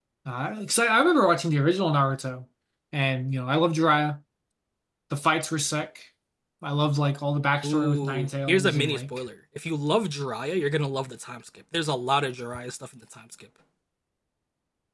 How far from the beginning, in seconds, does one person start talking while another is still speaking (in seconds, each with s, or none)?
7.6 s